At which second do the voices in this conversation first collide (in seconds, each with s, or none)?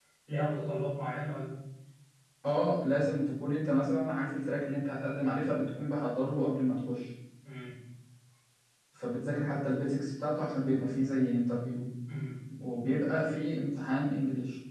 none